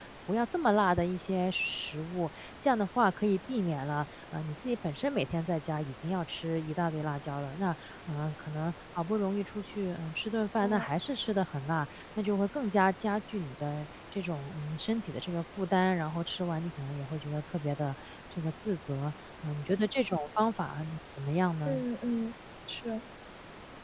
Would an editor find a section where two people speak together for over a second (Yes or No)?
No